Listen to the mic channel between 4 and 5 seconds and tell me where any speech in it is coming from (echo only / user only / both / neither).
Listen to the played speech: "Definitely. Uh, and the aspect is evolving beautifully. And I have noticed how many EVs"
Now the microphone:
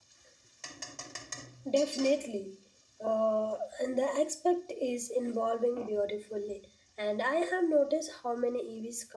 echo only